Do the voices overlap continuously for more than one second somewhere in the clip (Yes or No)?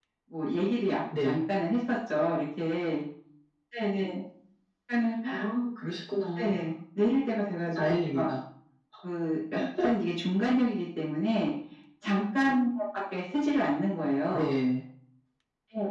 No